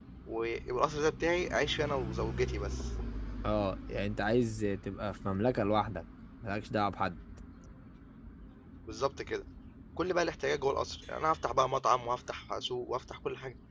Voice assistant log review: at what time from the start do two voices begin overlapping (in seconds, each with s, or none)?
none